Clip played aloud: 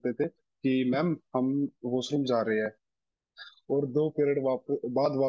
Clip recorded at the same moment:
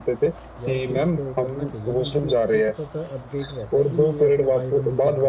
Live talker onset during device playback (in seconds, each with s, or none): 0.6 s